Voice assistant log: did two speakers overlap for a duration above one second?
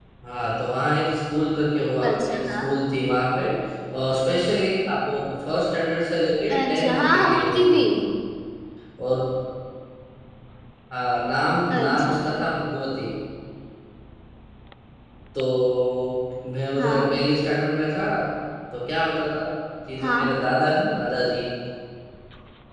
Yes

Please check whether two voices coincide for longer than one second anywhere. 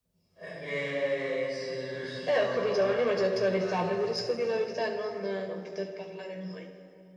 Yes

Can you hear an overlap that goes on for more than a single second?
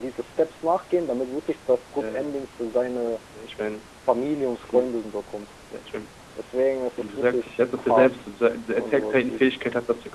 Yes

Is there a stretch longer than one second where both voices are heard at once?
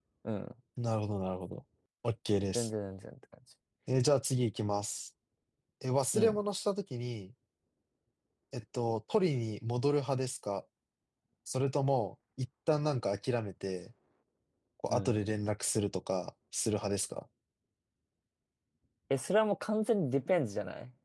No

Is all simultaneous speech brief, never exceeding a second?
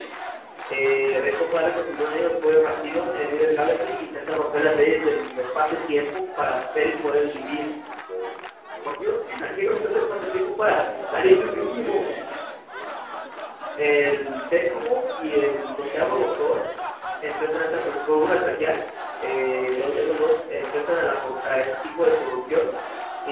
No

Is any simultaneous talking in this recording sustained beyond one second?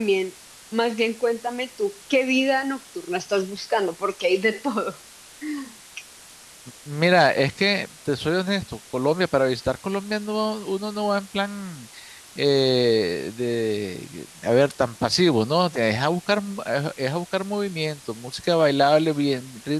No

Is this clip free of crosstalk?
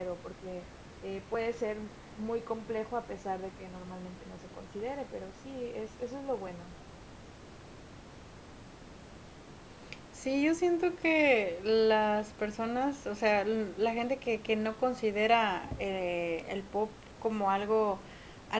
Yes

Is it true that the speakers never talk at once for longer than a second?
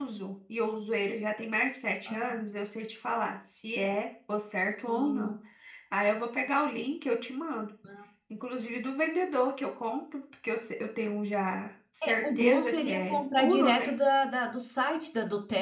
No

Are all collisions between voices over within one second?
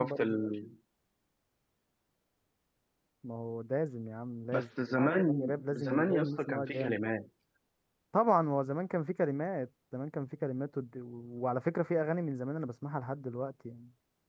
No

